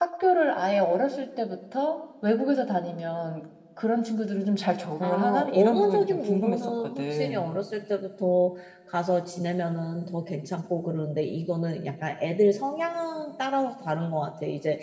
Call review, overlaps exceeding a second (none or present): present